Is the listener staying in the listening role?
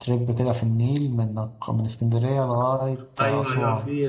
No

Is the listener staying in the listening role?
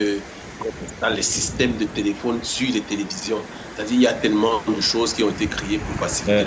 No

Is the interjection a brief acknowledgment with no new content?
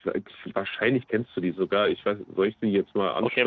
No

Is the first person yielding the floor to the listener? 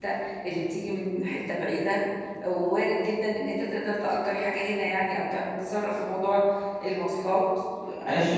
Yes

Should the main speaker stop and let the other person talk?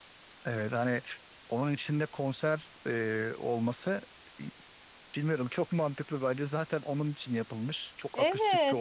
Yes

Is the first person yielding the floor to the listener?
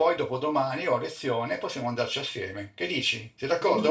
Yes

